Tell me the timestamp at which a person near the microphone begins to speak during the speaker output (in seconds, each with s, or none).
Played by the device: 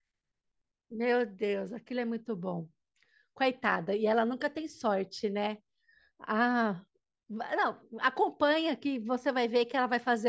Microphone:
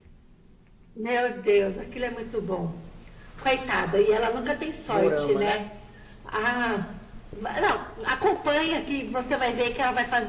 4.9 s